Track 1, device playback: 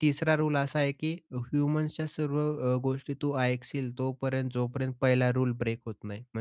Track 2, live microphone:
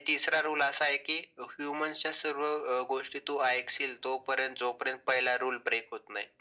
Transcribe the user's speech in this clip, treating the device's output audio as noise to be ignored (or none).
none